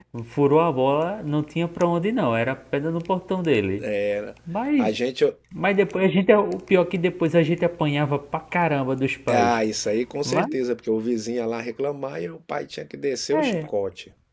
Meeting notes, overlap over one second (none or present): none